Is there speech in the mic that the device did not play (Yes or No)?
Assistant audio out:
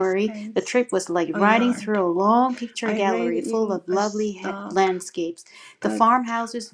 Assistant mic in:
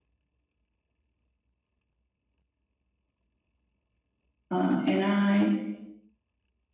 Yes